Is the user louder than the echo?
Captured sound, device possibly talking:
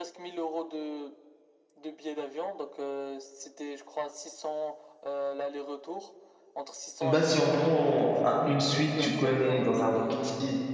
Yes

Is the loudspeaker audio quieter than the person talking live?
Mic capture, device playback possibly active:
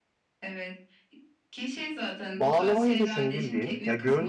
Yes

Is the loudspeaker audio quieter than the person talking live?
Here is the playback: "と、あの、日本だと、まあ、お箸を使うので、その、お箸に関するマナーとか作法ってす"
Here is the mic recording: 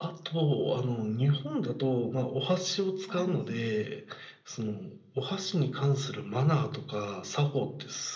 No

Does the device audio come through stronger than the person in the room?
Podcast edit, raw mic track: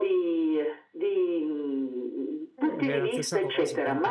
Yes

